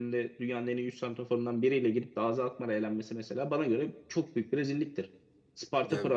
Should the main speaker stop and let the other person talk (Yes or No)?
No